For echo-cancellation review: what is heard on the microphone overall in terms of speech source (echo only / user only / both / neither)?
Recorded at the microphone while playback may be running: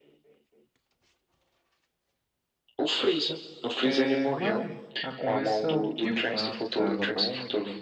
both